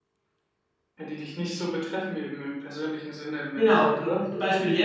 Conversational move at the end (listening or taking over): taking over